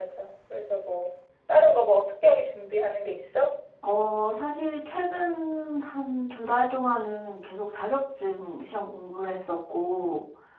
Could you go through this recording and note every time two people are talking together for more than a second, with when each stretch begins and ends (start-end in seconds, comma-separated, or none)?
none